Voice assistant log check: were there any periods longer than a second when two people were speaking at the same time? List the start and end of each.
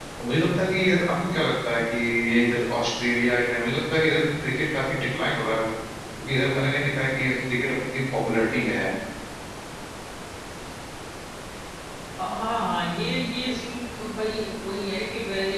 none

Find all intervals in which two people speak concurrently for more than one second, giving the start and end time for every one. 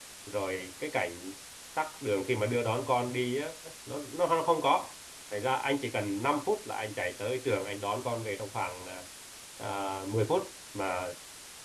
none

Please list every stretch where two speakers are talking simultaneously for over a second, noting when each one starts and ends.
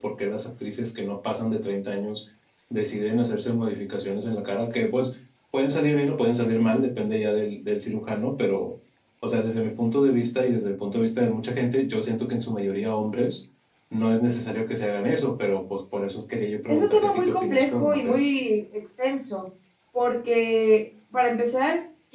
16.7-18.2

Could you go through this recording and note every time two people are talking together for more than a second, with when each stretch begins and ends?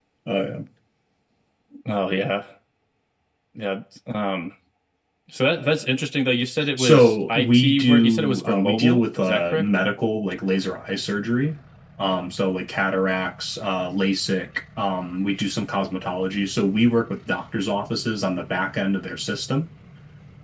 6.8-9.6

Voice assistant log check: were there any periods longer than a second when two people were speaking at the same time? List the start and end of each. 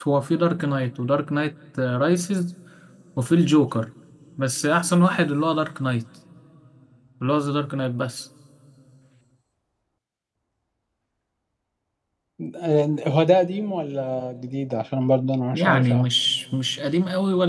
none

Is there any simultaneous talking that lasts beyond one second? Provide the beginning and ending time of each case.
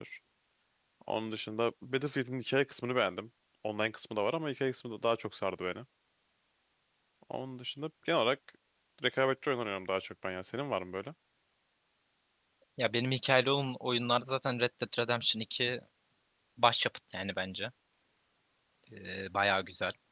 none

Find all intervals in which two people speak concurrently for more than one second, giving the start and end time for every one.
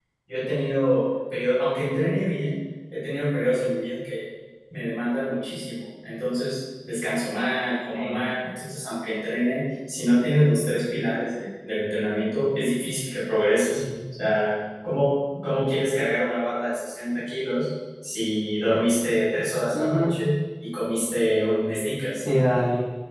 none

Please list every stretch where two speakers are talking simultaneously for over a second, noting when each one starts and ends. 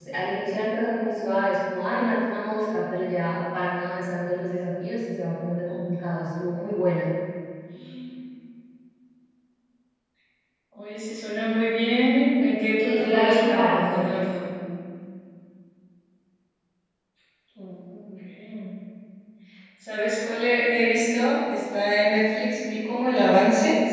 12.8-14.1

